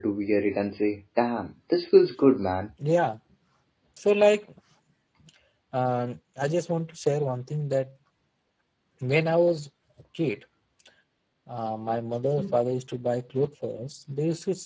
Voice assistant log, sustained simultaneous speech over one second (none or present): none